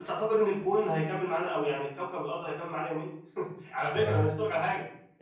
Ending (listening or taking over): listening